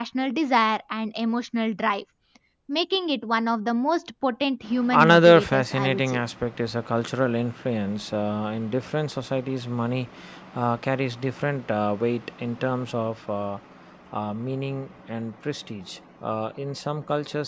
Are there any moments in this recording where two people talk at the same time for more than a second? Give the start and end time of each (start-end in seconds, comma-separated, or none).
4.9-6.2